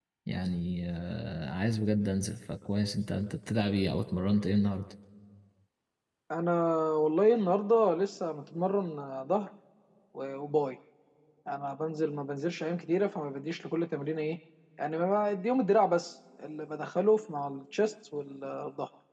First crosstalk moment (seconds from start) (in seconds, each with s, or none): none